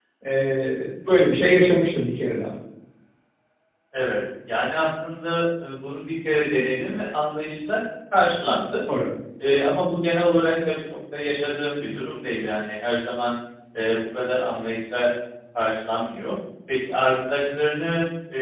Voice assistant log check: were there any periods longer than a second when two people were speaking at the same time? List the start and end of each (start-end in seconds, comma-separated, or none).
none